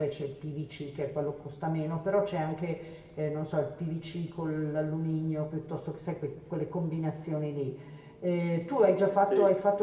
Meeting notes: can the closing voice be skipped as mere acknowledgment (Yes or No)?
Yes